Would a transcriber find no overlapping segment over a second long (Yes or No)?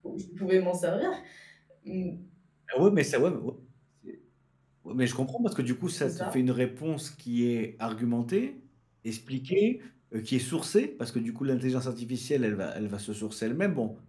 Yes